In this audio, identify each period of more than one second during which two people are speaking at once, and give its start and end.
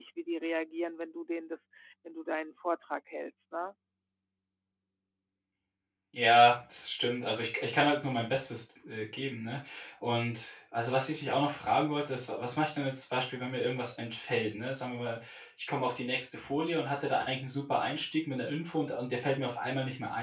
none

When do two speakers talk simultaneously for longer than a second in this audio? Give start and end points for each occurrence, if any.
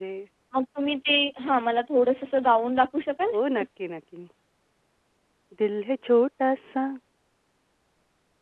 none

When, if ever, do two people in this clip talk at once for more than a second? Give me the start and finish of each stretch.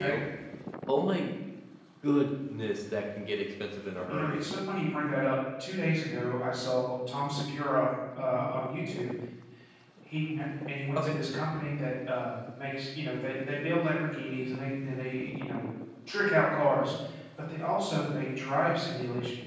none

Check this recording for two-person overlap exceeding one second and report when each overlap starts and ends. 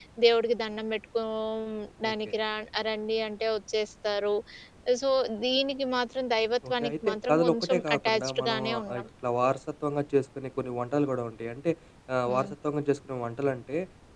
6.7-9.0

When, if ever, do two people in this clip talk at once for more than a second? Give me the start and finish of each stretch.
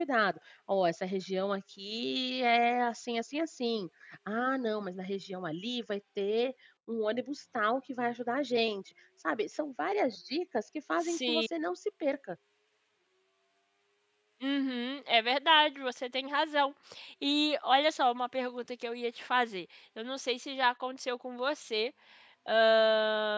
none

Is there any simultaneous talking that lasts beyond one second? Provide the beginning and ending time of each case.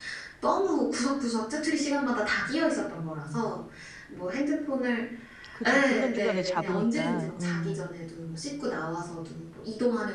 5.7-7.9

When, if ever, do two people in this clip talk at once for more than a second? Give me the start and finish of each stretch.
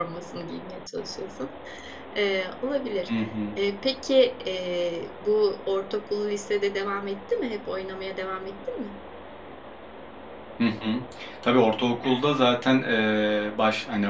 none

